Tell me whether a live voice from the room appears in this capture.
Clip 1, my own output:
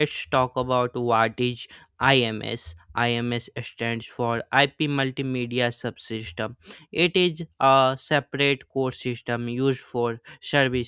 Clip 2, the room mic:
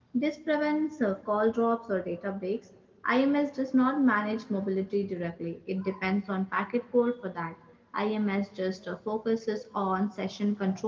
Yes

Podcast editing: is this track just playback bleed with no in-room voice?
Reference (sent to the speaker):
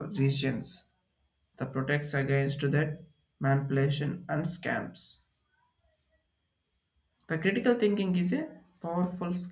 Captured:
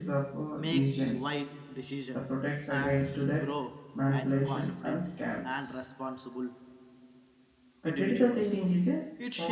No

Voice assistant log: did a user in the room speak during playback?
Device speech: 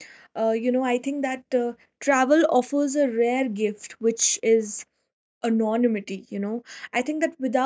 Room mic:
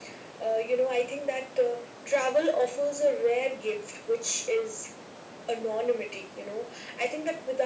No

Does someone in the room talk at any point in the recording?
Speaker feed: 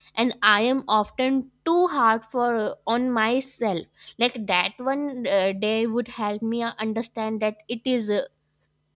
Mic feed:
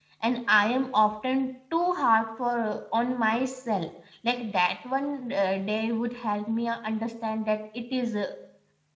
No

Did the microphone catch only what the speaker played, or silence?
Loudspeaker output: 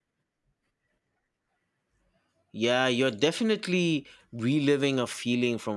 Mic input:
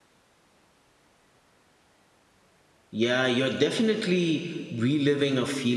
Yes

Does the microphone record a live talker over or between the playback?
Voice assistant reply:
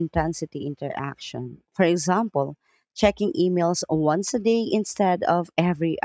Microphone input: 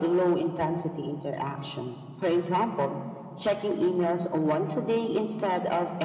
No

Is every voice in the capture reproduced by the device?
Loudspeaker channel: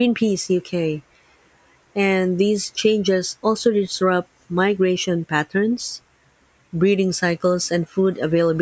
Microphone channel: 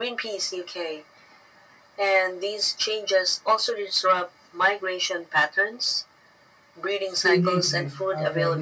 No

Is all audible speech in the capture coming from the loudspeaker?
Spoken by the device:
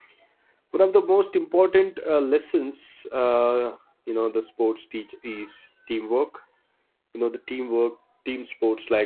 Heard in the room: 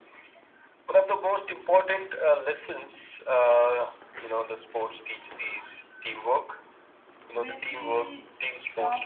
No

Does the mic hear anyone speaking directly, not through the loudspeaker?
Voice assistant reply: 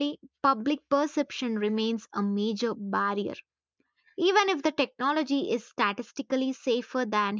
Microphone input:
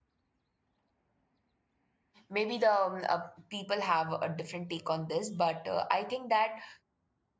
Yes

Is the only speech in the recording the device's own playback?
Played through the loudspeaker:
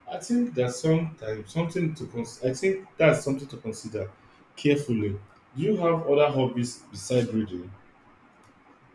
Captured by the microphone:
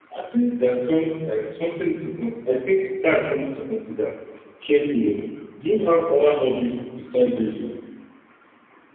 Yes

